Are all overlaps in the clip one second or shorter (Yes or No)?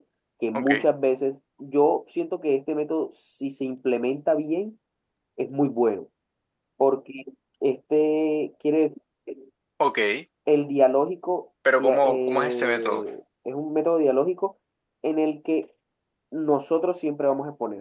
No